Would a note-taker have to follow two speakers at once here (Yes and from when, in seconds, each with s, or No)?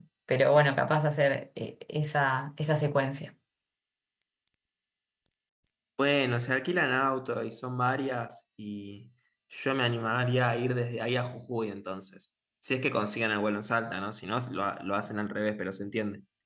No